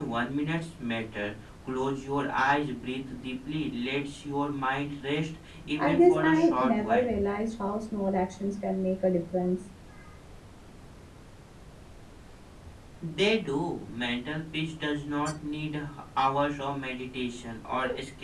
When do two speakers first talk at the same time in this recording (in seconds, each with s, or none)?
5.8 s